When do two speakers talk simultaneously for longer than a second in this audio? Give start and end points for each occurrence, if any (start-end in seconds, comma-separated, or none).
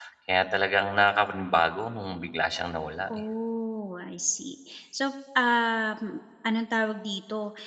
none